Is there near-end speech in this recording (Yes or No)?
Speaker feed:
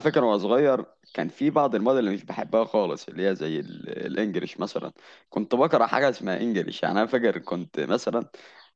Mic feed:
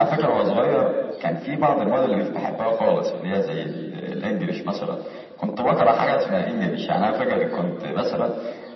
No